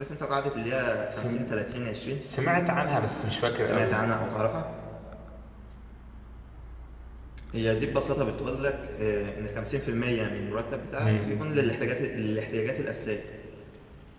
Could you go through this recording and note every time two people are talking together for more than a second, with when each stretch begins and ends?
none

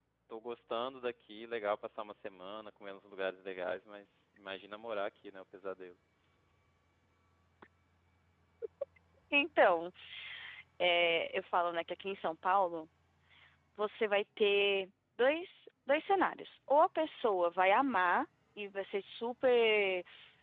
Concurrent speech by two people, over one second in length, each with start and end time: none

